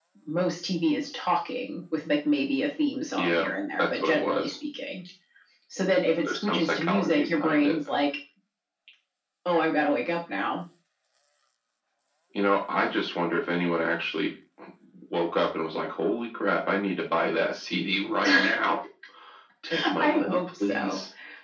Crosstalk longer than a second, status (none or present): present